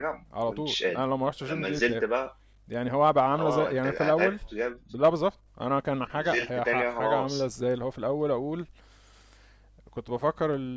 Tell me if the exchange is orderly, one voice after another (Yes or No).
No